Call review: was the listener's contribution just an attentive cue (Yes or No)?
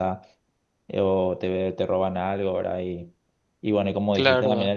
Yes